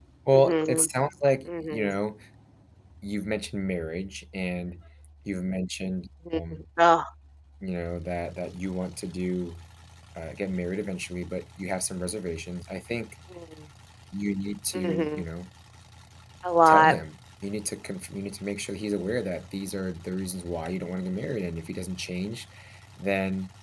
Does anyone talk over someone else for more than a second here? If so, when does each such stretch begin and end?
none

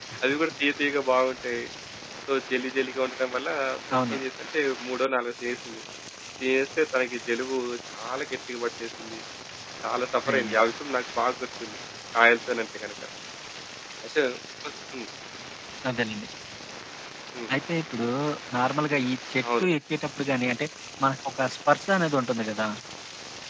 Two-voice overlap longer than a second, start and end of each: none

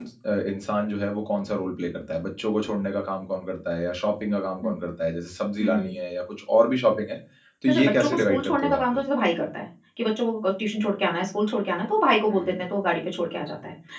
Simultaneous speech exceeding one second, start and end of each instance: 7.7-9.0

